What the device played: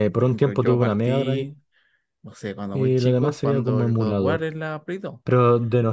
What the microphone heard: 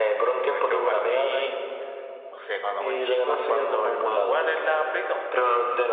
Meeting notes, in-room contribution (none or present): none